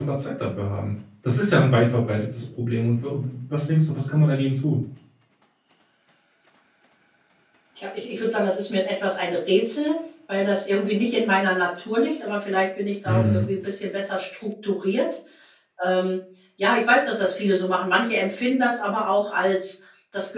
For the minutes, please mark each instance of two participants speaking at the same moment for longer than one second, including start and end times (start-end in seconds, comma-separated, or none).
none